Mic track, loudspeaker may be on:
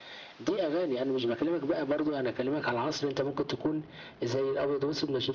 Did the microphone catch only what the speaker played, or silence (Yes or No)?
Yes